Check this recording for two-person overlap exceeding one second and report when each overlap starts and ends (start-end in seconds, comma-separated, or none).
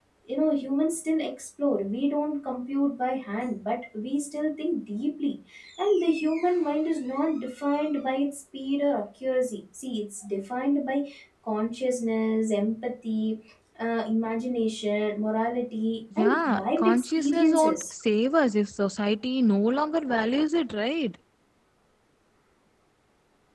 16.2-17.8